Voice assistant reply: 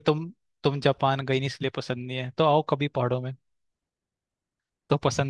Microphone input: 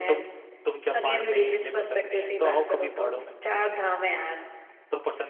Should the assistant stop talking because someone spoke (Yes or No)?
Yes